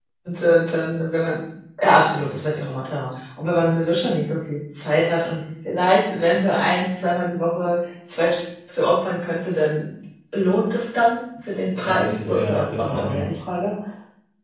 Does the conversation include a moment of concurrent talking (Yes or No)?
Yes